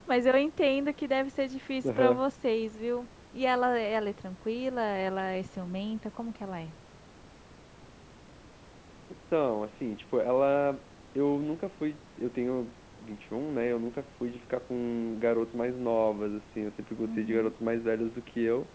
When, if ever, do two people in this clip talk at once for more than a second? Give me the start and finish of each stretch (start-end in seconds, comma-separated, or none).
none